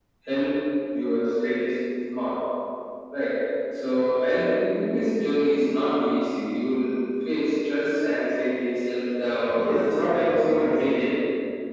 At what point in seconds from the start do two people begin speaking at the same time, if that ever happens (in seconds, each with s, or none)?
9.5 s